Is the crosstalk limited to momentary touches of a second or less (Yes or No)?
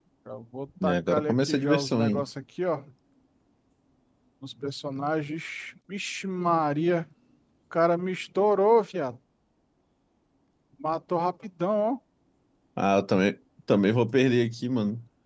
No